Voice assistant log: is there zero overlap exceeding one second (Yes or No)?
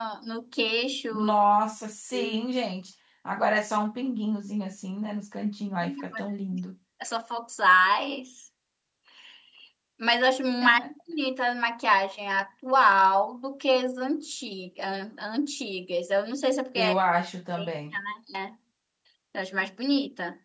Yes